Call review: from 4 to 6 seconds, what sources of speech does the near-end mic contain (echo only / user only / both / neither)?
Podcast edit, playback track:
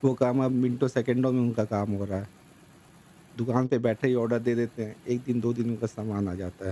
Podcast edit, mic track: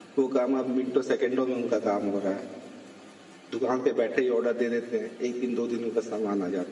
echo only